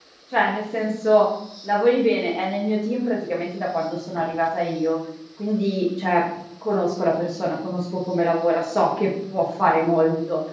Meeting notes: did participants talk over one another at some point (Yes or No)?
No